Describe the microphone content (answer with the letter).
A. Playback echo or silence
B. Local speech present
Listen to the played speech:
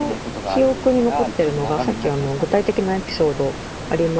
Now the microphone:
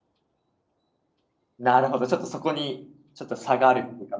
B